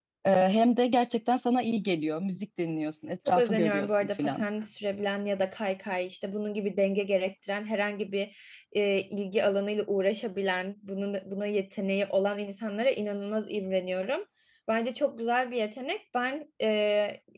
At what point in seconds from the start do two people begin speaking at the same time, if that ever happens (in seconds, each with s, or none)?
3.3 s